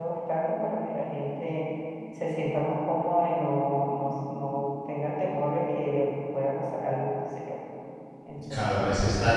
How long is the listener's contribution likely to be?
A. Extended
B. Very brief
A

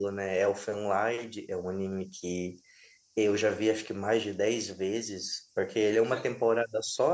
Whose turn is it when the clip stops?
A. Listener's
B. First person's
B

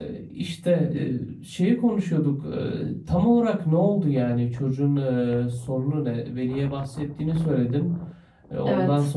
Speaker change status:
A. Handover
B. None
B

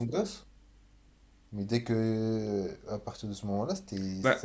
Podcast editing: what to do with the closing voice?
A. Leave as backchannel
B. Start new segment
B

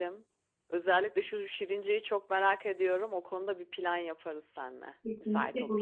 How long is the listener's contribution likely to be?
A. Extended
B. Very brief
A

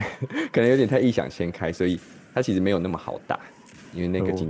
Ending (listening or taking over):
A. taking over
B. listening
B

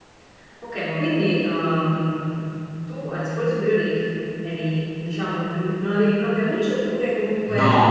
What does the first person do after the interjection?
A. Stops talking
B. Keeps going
A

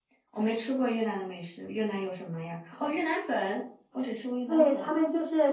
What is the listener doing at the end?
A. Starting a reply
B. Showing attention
A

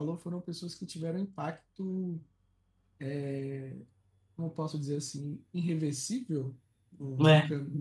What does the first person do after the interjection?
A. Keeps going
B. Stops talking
A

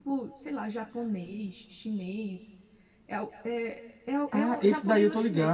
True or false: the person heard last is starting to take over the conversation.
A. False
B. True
B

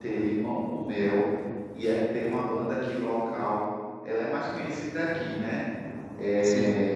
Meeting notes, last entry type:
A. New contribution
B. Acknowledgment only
B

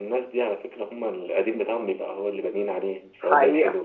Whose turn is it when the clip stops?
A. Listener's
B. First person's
A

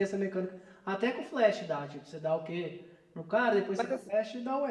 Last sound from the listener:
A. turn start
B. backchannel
B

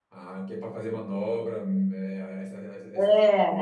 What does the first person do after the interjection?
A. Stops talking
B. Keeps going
A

